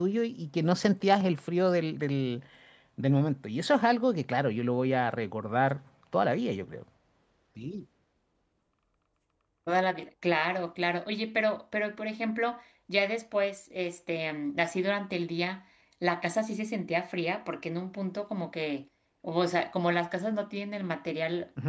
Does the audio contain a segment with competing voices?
No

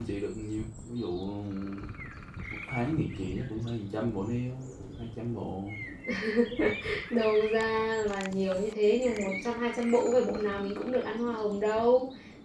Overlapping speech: No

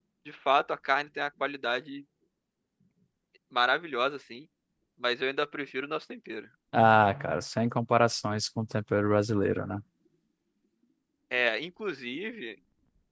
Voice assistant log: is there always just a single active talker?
Yes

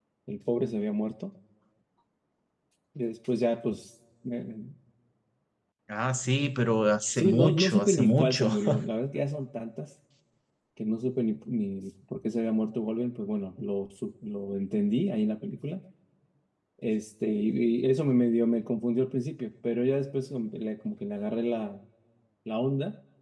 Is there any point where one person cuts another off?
Yes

